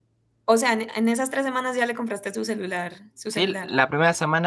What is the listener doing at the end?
taking over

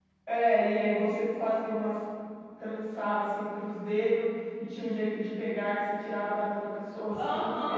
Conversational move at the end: taking over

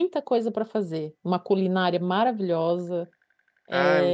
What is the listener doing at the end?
listening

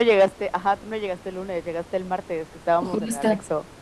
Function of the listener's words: taking over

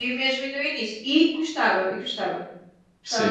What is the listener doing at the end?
taking over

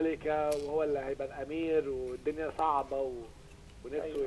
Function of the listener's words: taking over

